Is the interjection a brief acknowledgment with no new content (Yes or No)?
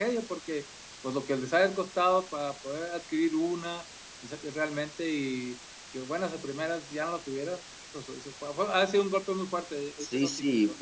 No